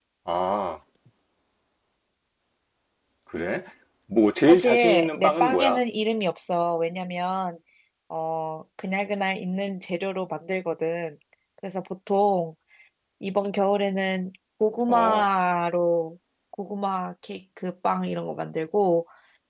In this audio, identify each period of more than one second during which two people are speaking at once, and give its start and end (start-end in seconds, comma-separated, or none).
4.5-5.8